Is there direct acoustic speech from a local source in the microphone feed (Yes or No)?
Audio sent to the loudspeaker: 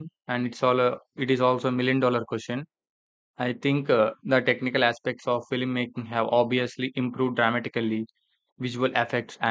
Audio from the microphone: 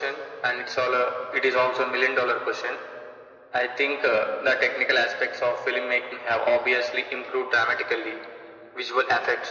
No